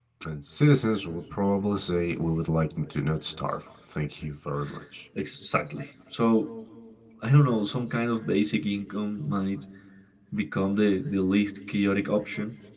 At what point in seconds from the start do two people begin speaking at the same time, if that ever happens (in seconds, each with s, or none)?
none